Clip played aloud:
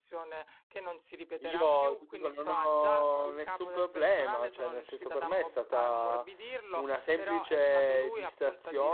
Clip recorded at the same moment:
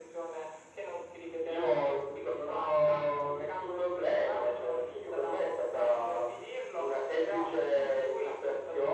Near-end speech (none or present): none